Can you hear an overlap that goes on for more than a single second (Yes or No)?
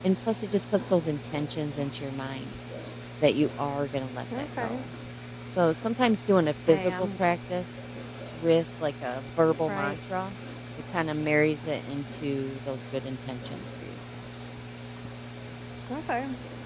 No